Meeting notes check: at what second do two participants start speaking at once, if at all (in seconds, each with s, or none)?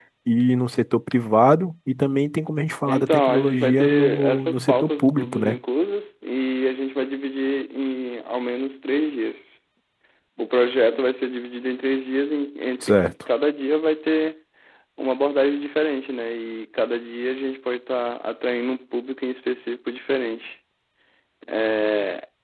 2.9 s